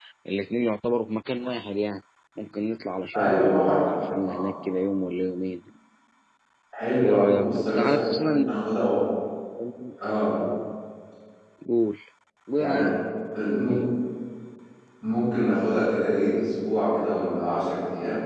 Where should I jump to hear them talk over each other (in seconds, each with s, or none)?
3.1 s